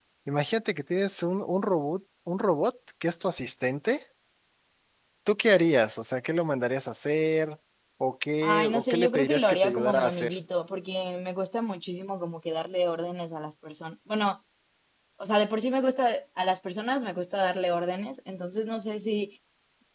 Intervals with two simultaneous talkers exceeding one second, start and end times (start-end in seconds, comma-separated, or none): 8.4-10.3